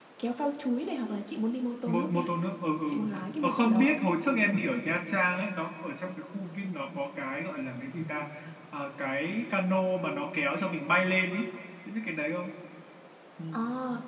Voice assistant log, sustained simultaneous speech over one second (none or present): none